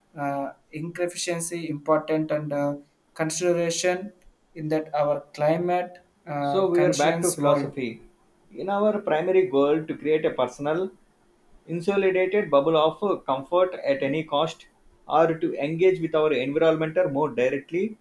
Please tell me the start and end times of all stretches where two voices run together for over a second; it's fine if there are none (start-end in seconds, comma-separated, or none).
6.4-7.7